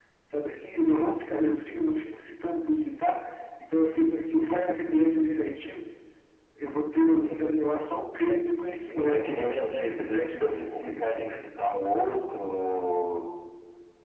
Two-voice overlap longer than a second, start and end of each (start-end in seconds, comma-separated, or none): 8.9-11.4